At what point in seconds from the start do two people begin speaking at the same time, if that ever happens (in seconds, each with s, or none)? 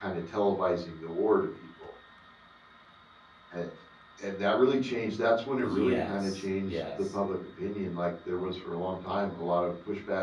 5.6 s